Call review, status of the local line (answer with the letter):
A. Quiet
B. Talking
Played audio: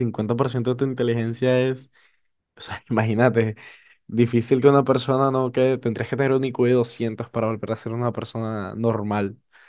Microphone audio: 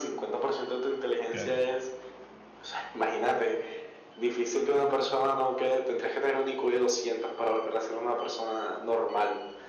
B